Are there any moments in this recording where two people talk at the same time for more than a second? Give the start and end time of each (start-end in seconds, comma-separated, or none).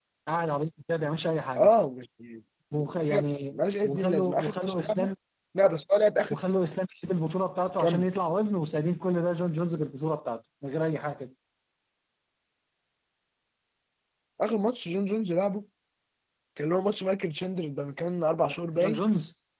3.5-5.1